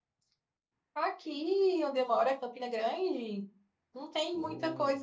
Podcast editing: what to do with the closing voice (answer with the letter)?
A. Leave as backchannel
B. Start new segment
A